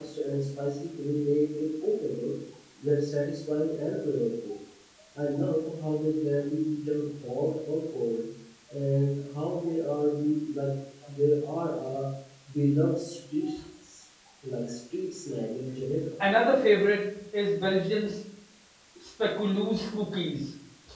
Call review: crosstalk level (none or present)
none